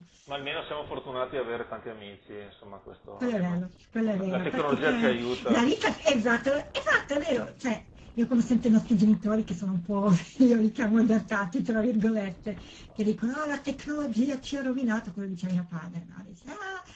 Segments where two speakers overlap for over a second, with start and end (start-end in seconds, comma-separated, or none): 4.1-5.6